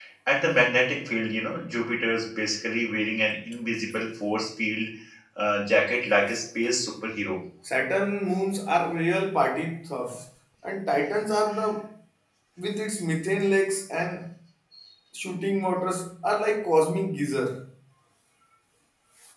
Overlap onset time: none

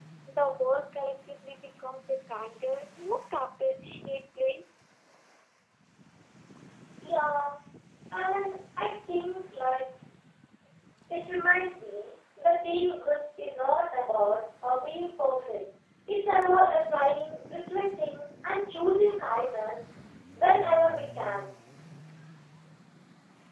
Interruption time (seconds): none

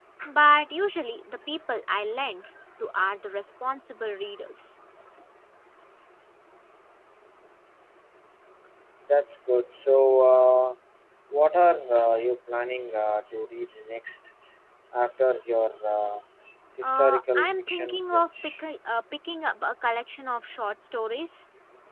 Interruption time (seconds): 16.8 s

